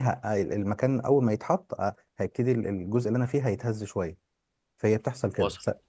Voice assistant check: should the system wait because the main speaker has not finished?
Yes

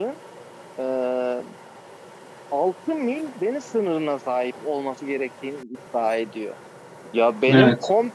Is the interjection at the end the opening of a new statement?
No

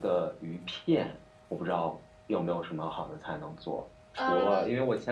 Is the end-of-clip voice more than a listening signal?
No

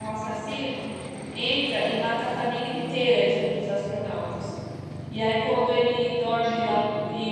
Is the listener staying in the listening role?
Yes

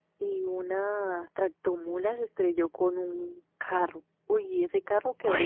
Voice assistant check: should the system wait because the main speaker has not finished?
Yes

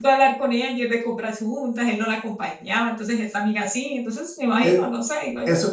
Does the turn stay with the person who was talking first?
No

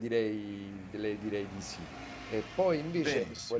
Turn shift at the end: No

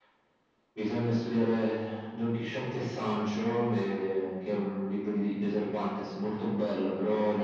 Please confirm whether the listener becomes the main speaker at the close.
No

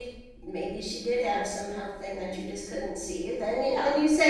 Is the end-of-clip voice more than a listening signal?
No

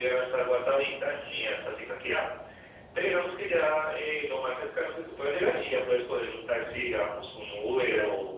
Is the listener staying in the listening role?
No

